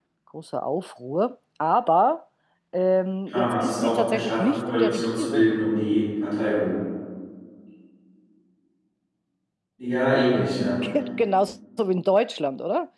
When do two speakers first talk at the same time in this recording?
3.3 s

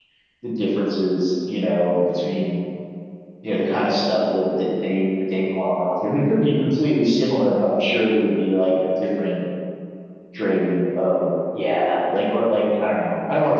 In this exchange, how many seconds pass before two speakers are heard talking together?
none

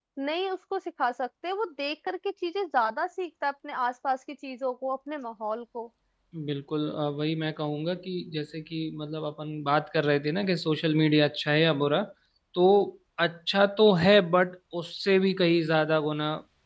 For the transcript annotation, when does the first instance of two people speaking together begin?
none

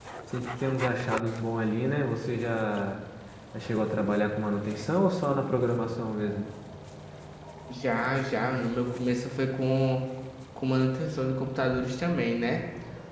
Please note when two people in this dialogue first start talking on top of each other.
none

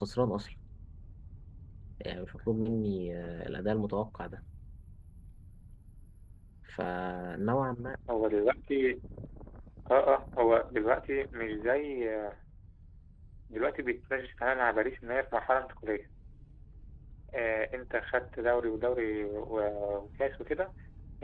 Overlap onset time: none

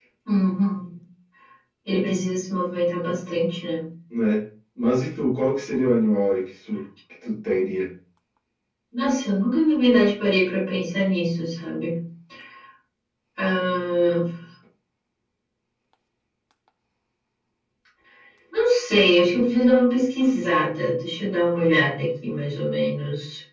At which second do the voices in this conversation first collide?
none

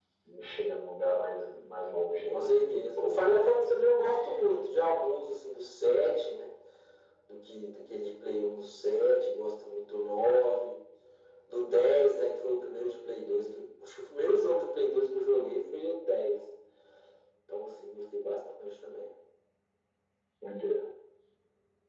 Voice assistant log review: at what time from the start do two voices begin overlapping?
2.3 s

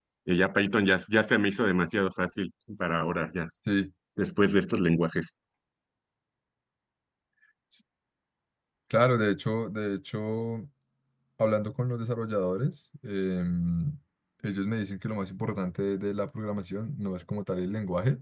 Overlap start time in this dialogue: none

